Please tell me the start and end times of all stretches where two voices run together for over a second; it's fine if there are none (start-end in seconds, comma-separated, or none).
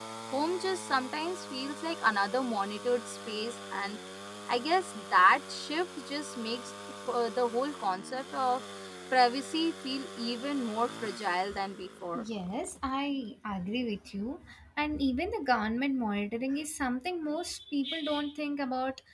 none